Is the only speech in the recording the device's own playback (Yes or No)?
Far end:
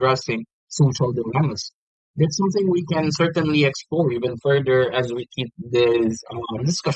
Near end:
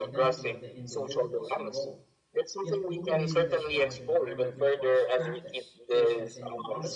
No